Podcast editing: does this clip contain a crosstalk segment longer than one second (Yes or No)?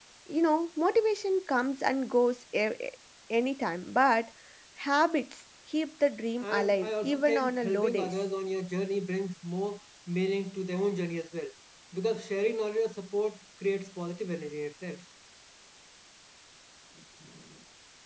Yes